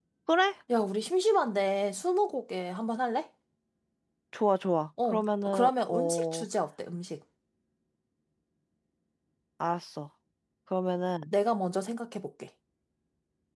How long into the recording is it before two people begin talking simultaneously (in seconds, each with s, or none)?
5.0 s